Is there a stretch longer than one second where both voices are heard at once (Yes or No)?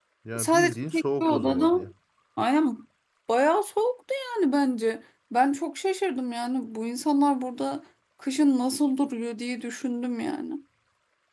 Yes